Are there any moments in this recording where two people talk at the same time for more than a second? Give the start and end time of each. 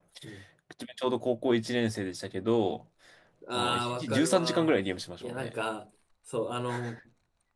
3.5-4.8

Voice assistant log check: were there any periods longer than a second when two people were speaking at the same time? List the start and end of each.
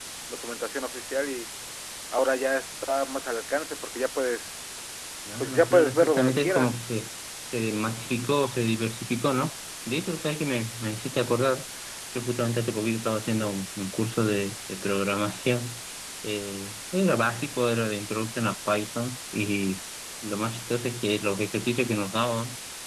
5.4-6.7

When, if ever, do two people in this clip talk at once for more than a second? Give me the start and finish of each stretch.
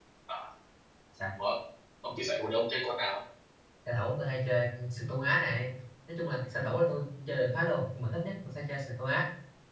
none

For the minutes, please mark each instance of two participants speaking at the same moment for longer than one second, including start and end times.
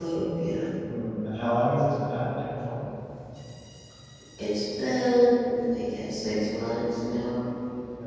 none

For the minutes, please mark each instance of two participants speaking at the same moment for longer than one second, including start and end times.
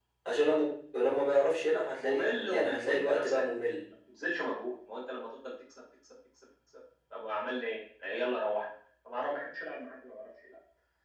2.0-3.9

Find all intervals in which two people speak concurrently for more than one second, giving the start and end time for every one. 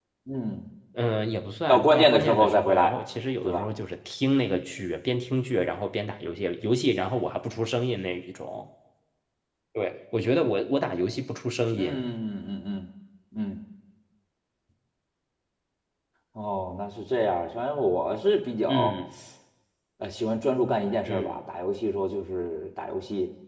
1.7-2.9

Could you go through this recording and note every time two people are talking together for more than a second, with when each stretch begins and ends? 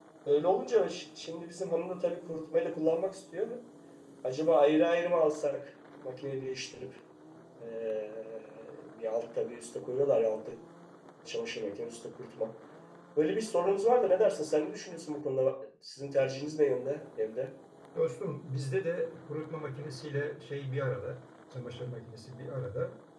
none

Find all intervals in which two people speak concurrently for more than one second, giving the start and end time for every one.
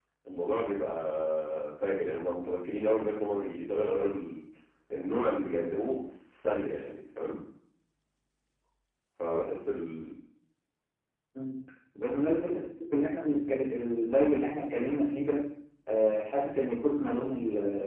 none

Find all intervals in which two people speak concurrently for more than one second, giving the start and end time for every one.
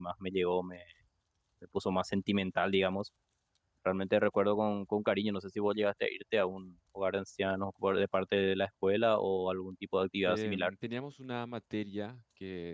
none

